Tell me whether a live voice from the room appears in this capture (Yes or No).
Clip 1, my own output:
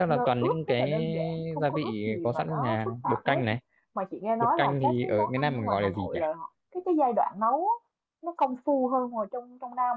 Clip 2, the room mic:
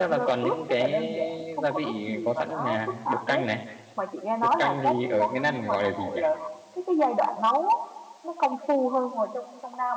No